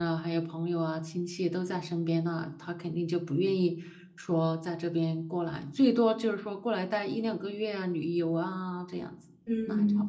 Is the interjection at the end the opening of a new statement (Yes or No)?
Yes